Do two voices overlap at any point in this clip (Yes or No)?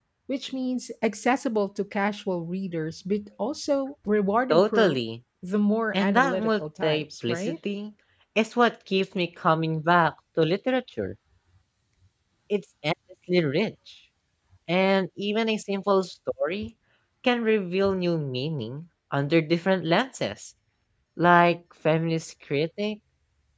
Yes